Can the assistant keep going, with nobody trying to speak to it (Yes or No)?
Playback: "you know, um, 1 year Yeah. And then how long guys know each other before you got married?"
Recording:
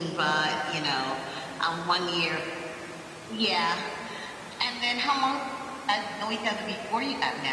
Yes